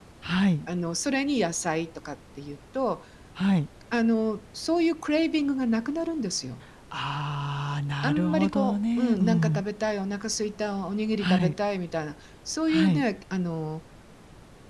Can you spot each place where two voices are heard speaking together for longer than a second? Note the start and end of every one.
8.0-9.6

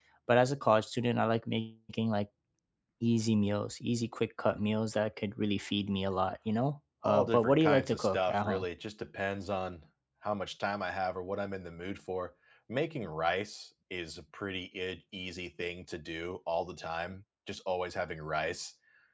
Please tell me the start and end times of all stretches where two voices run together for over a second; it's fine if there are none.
7.0-8.7

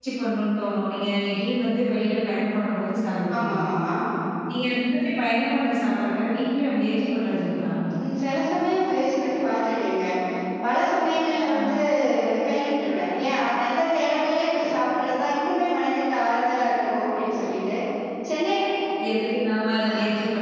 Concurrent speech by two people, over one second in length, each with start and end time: none

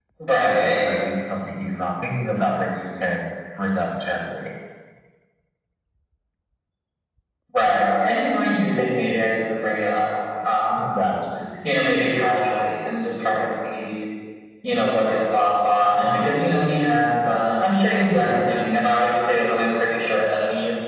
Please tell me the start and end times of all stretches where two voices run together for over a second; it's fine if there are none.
none

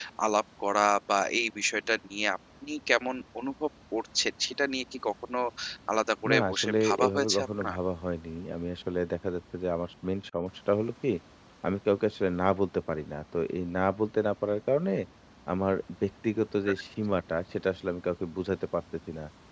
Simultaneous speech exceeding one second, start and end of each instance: 6.3-7.8

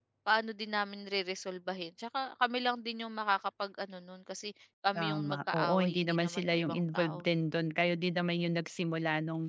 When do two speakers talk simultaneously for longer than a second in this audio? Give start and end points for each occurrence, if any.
5.0-7.3

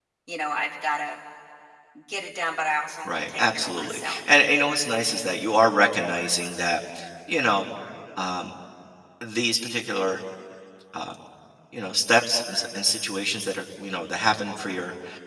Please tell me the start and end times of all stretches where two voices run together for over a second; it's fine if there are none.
3.0-4.3

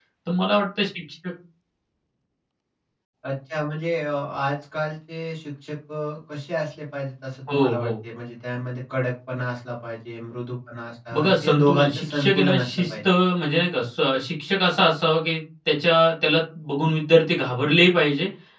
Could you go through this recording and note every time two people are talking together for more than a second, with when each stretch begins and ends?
11.1-12.9

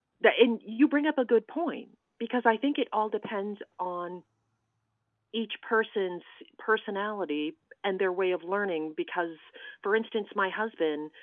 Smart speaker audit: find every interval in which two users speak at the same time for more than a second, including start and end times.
none

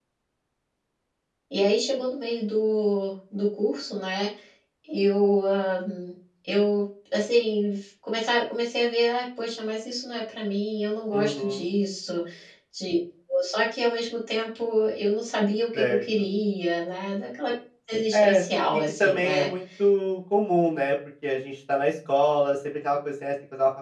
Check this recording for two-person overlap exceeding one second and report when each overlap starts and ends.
18.1-19.4

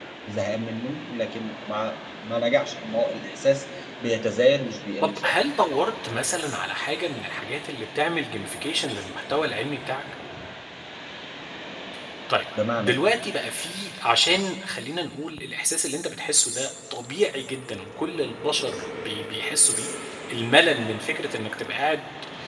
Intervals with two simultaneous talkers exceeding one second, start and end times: none

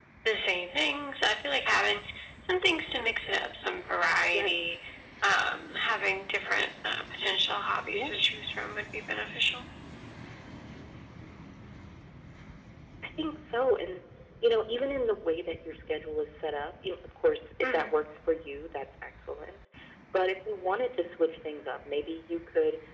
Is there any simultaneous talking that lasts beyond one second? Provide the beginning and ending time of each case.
none

